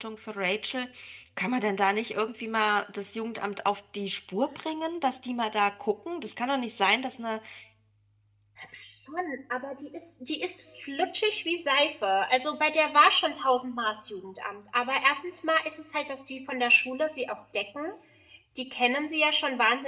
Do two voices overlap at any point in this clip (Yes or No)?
No